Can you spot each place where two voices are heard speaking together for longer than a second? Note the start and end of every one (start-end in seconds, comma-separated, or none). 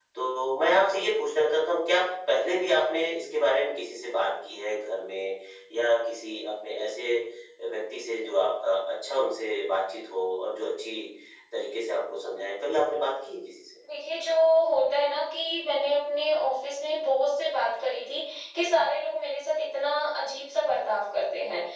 none